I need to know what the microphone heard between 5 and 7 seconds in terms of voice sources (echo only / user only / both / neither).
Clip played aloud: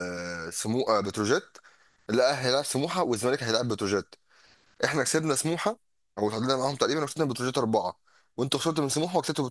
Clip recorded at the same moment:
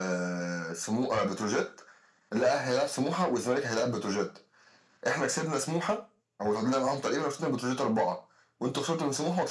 echo only